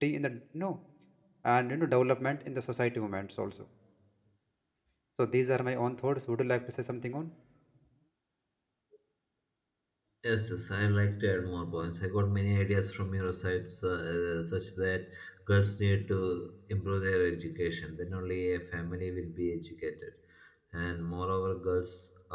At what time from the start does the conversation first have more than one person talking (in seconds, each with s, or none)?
none